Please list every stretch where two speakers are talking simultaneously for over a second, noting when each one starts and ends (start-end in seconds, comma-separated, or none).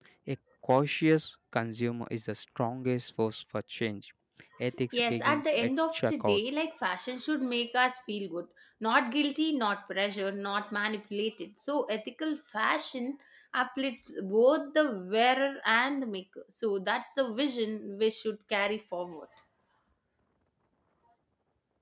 5.1-6.4